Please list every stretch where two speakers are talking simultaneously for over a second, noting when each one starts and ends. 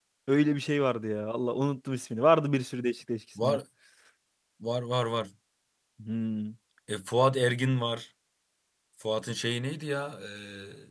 none

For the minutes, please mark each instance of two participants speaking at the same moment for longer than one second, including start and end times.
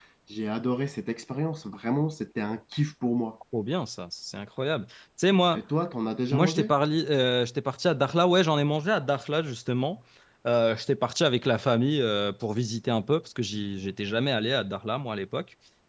none

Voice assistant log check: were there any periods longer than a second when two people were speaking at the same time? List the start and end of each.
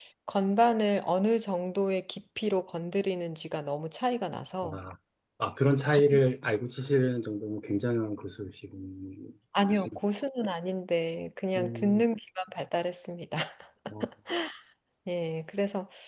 none

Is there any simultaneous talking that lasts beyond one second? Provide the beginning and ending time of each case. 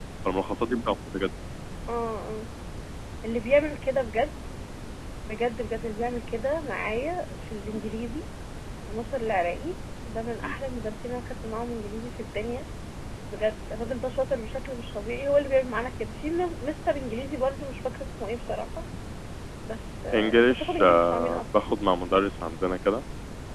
20.1-21.4

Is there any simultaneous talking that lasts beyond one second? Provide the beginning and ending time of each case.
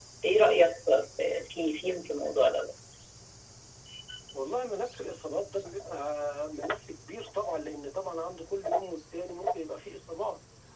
none

